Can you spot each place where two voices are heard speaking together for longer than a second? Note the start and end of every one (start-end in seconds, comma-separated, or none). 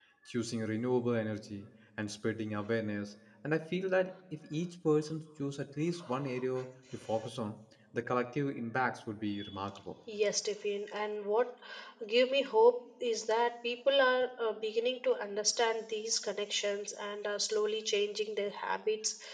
none